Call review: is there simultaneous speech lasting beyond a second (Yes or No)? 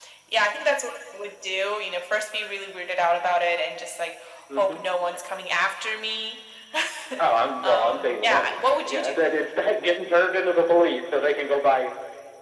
Yes